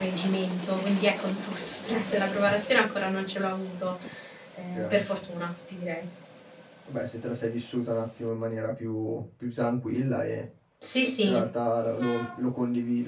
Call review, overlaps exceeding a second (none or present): none